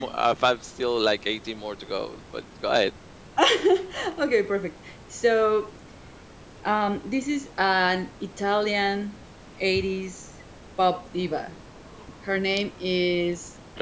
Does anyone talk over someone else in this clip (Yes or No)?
No